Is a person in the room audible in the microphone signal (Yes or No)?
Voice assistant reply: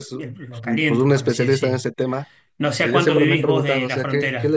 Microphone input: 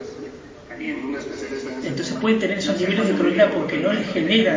Yes